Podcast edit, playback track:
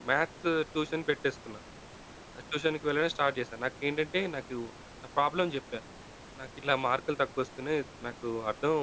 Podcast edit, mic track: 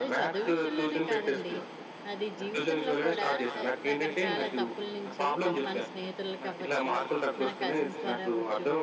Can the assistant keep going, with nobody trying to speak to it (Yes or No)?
No